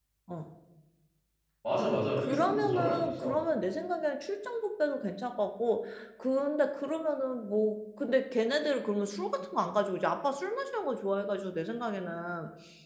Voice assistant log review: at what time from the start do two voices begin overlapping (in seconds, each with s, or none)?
1.8 s